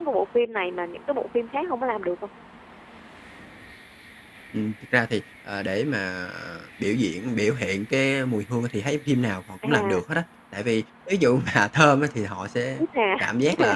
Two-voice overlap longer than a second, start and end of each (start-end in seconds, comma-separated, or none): none